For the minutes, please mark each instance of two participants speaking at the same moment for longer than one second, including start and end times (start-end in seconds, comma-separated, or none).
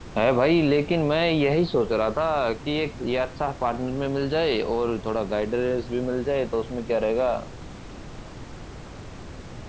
none